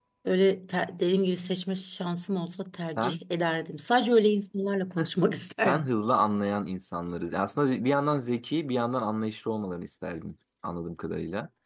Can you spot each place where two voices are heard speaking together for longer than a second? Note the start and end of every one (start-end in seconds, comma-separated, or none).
none